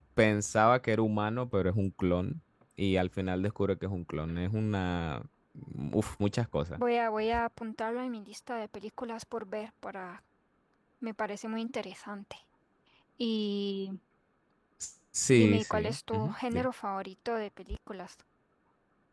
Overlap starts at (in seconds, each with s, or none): 15.3 s